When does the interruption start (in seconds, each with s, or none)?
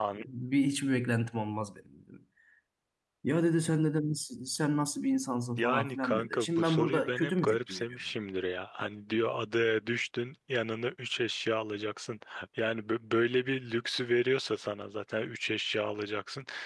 5.6 s